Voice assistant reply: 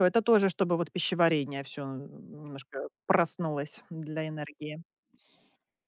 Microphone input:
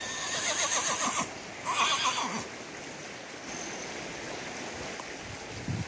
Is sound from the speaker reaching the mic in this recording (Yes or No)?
No